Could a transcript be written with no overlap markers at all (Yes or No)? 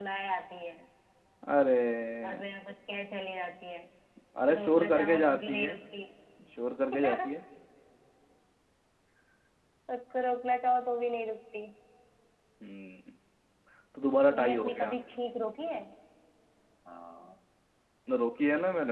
No